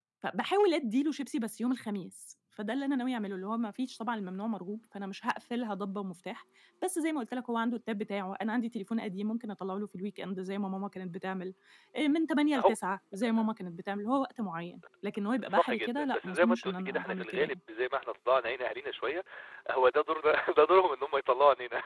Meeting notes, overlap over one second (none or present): present